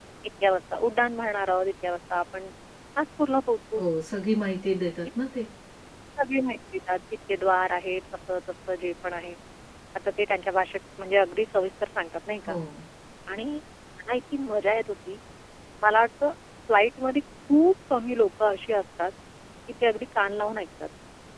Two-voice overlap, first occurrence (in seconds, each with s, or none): none